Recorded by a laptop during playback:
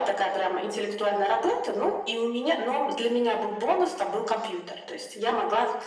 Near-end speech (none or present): none